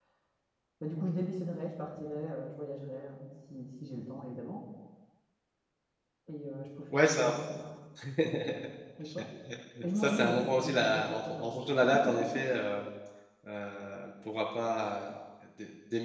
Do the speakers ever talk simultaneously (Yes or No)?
Yes